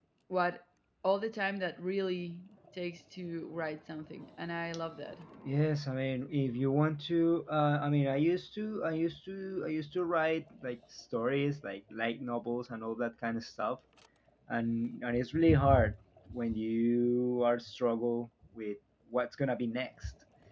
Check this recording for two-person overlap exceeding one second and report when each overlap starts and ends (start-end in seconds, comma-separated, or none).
none